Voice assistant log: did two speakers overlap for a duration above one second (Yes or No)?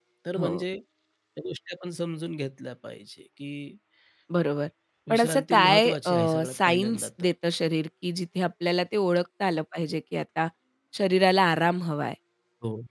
Yes